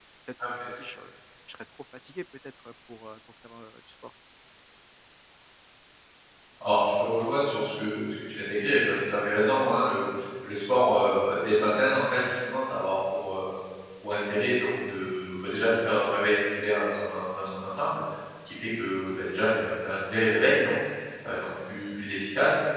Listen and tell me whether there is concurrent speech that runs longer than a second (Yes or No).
No